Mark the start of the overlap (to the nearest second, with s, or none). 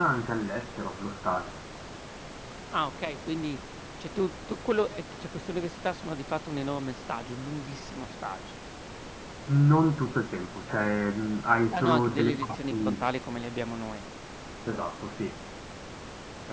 12 s